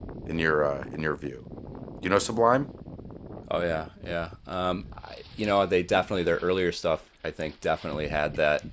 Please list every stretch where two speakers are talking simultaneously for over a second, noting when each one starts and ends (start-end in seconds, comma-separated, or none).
none